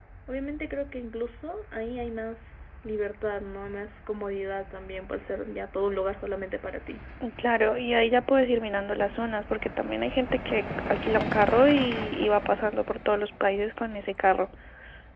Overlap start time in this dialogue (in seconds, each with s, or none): none